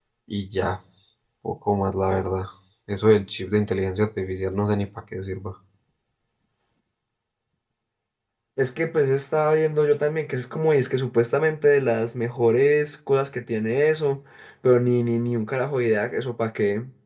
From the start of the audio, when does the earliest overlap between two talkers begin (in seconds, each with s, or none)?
none